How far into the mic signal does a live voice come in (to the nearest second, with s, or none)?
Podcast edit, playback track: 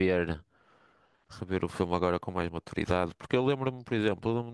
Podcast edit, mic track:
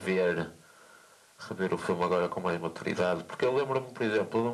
none